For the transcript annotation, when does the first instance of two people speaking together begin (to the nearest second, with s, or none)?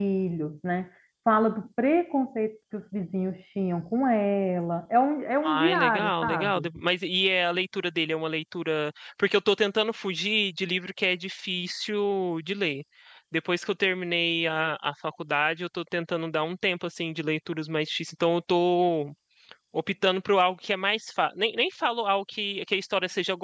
5 s